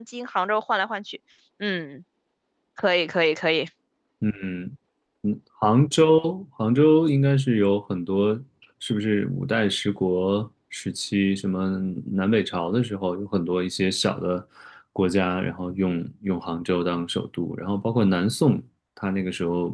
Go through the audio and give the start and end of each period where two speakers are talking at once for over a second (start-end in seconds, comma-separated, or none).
none